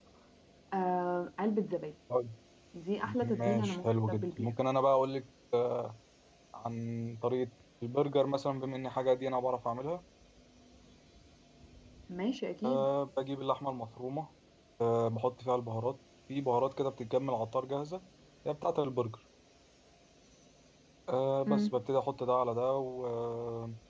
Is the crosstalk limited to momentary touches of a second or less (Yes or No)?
No